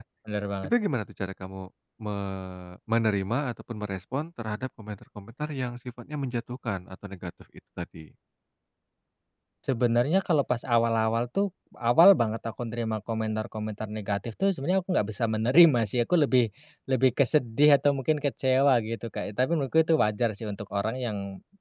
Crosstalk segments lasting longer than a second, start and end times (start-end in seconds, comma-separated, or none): none